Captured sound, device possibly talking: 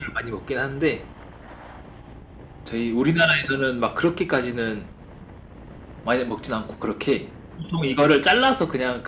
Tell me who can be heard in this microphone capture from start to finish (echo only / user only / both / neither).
echo only